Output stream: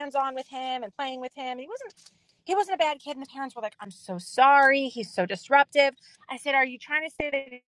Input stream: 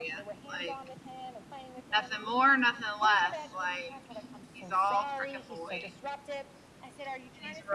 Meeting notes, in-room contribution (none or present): present